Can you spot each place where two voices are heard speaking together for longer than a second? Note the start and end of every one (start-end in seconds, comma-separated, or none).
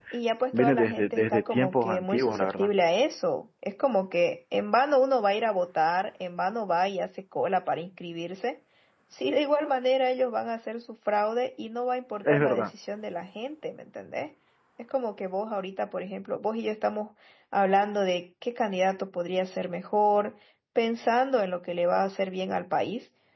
0.5-2.7